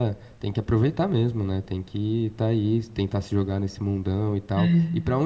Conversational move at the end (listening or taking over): listening